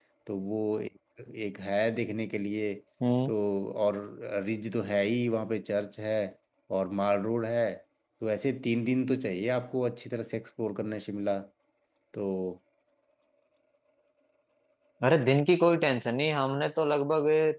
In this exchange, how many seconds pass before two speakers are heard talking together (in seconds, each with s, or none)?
none